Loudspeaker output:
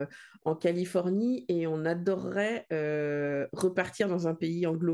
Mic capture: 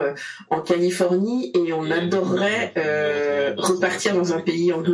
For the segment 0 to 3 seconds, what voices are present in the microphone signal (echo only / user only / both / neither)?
both